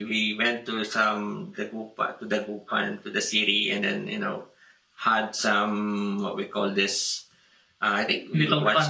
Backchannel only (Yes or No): Yes